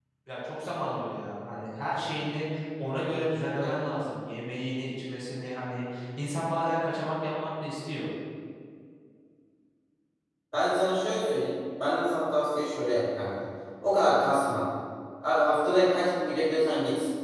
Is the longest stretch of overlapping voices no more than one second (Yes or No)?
Yes